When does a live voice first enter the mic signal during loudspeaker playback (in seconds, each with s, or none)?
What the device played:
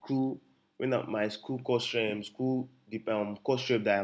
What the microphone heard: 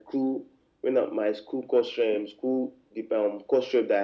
none